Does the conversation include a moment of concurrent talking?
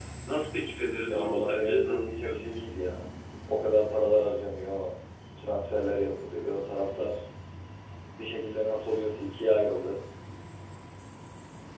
Yes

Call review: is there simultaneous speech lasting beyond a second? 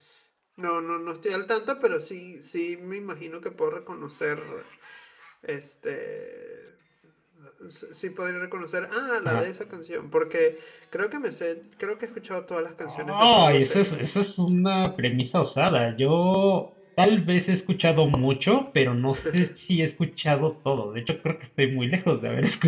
Yes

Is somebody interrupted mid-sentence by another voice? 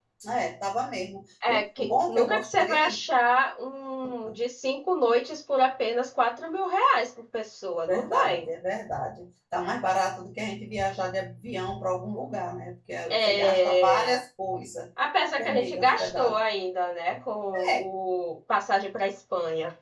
Yes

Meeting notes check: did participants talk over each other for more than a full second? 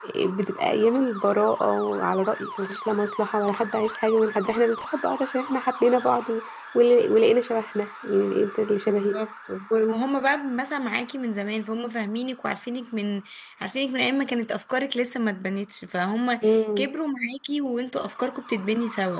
No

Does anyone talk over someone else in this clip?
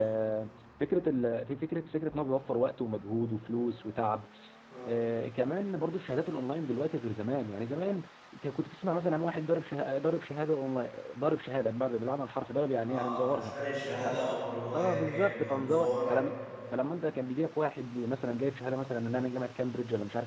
Yes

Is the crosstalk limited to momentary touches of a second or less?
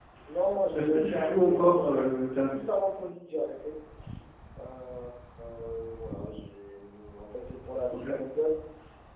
No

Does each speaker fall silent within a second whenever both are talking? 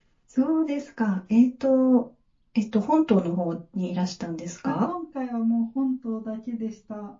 Yes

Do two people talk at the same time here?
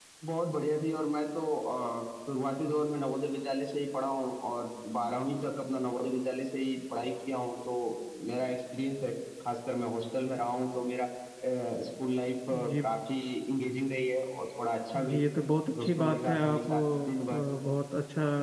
Yes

